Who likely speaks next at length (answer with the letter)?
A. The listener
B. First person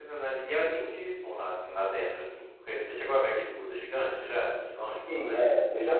A